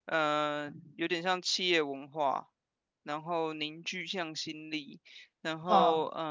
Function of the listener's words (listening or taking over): listening